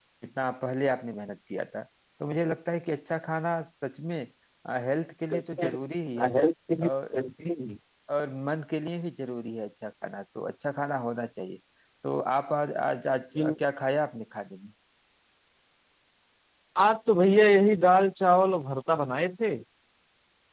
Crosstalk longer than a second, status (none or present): none